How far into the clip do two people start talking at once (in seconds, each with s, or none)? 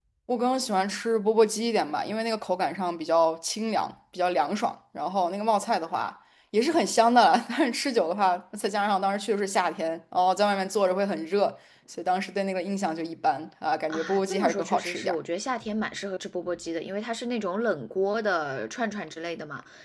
13.9 s